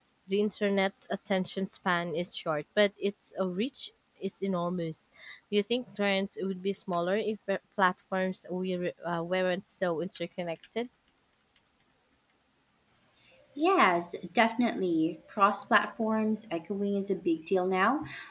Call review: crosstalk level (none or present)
none